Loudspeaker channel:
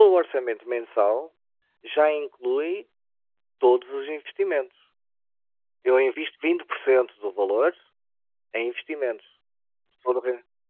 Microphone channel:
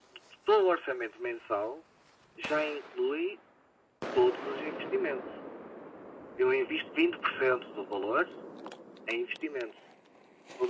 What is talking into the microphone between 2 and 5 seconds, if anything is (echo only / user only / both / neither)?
echo only